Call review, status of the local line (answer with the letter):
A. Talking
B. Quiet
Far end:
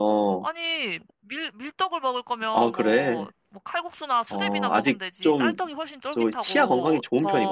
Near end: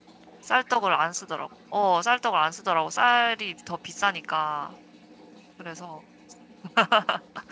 A